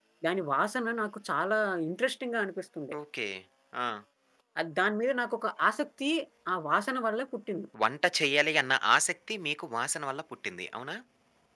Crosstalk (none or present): none